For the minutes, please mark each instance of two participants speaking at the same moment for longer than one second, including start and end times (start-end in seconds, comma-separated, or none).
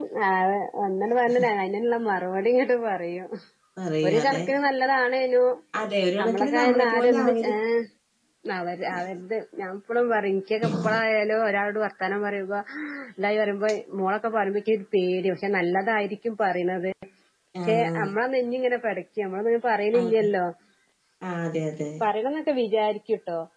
6.2-7.5